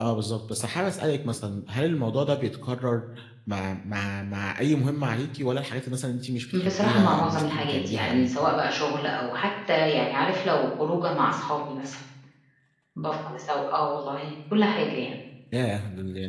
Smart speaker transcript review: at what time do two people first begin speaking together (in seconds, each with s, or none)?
6.5 s